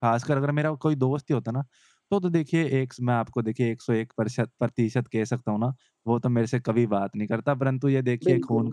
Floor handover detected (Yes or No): No